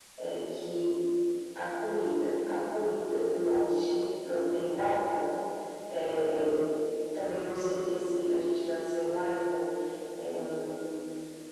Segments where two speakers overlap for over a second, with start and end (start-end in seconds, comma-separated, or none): none